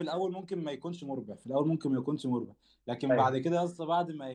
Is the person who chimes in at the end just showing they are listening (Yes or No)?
Yes